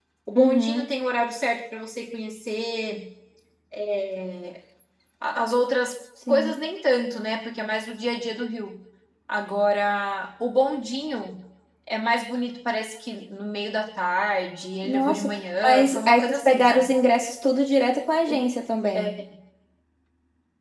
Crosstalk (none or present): present